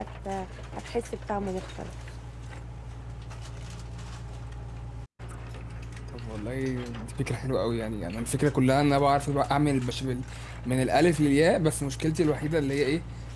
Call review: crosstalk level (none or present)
none